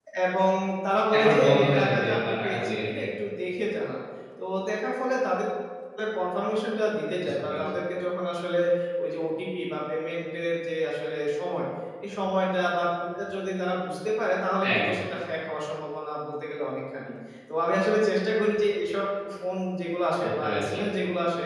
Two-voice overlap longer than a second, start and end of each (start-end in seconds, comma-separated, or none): 1.1-3.0